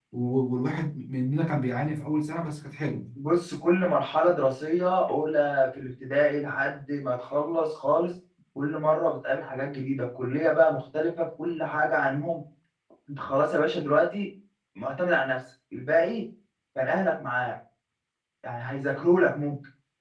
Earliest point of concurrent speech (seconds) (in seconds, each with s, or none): none